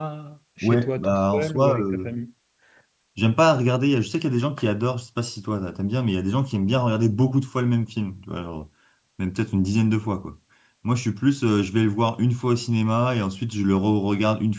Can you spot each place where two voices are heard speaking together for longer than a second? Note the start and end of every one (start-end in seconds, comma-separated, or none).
0.6-2.1